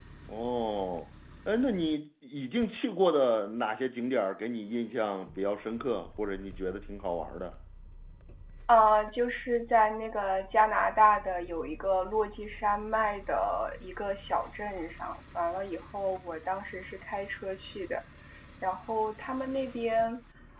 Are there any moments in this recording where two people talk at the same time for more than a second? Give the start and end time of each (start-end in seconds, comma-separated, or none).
none